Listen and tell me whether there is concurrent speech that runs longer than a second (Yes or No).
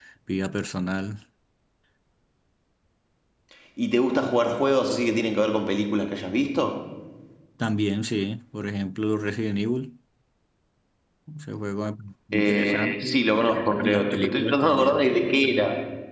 Yes